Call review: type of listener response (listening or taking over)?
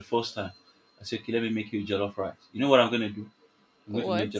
listening